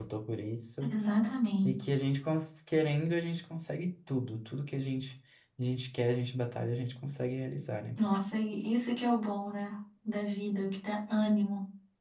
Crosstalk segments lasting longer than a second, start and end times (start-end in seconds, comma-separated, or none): none